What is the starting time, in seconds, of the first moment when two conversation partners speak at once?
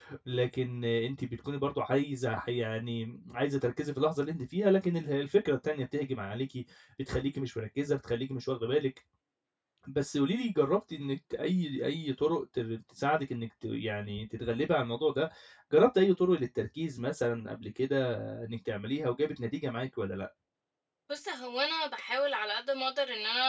none

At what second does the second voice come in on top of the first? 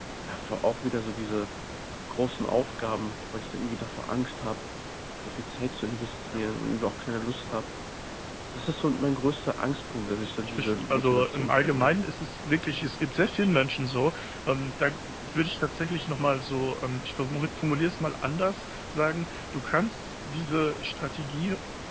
10.4 s

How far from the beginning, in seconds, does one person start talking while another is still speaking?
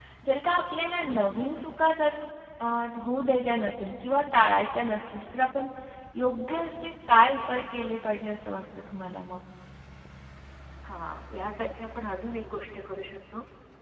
none

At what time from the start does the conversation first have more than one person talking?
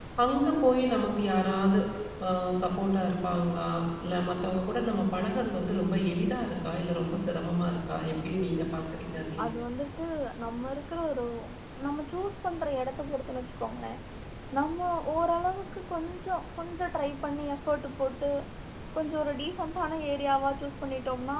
none

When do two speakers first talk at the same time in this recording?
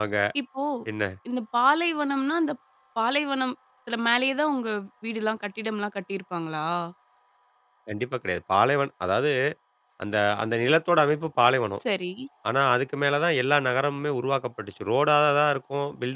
none

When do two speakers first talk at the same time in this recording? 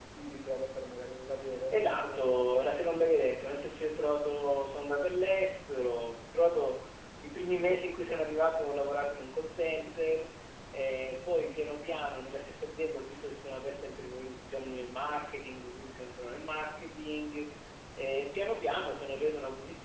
1.7 s

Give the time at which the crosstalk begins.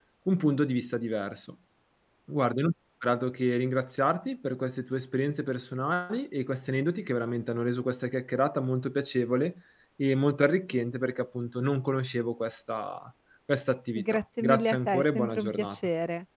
13.9 s

